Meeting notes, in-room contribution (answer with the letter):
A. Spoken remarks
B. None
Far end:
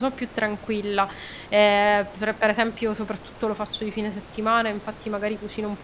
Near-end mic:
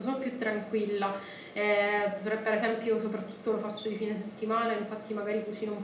B